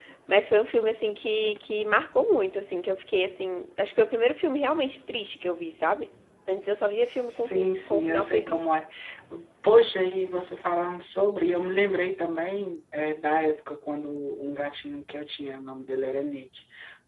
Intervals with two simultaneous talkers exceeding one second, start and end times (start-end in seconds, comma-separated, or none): 7.3-8.8